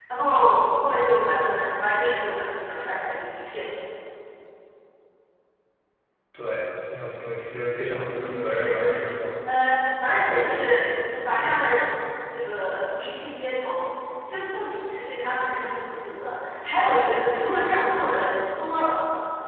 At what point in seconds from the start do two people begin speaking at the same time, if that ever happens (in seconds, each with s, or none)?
8.1 s